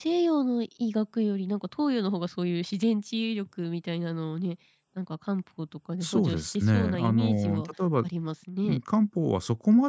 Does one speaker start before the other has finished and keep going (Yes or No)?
Yes